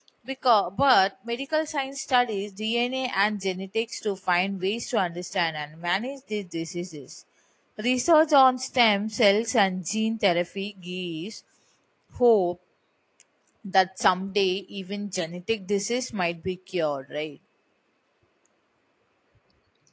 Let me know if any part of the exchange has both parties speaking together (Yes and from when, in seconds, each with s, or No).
No